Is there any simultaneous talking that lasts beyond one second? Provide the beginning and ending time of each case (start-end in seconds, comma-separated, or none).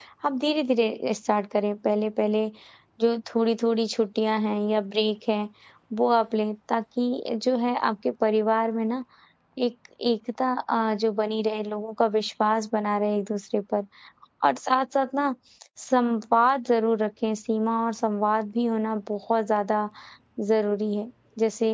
none